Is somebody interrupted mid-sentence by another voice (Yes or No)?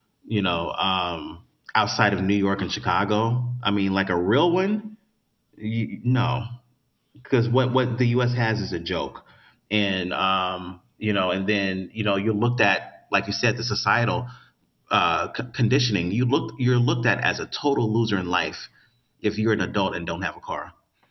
No